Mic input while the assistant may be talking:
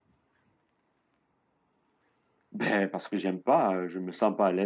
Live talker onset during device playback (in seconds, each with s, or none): 2.5 s